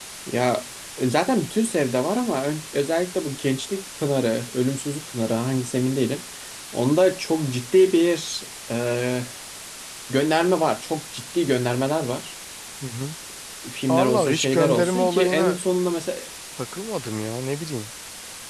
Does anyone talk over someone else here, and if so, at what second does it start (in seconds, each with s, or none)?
13.9 s